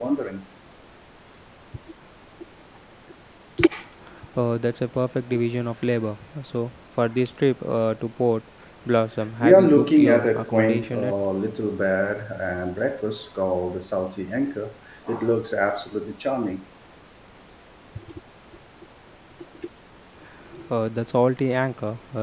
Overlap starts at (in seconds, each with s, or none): 9.4 s